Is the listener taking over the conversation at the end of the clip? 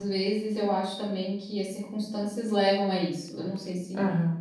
Yes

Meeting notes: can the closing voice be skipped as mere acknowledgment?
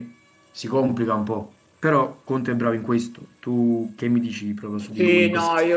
No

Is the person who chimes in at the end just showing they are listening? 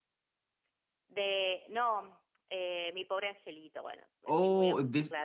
No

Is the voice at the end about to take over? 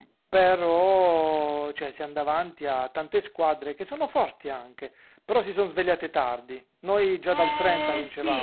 Yes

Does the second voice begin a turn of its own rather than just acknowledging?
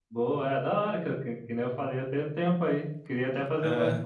No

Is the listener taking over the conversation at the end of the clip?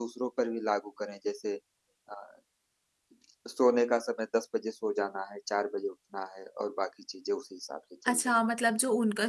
Yes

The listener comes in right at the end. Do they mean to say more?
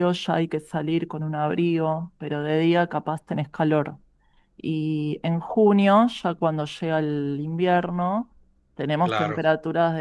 No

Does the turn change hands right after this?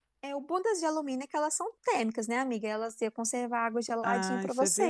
Yes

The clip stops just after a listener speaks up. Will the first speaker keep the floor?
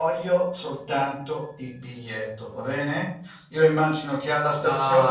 Yes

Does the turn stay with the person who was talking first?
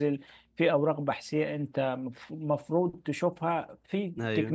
Yes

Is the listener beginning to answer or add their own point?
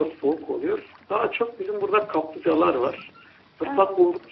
No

